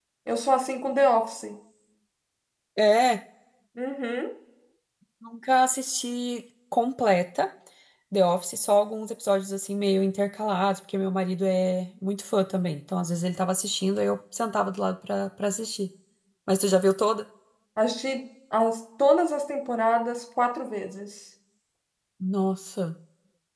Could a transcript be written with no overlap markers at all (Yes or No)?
Yes